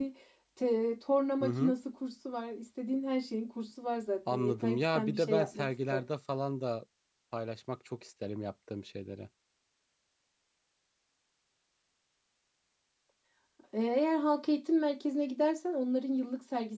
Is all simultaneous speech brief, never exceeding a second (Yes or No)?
No